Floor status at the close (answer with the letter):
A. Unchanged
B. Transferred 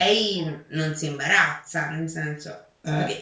A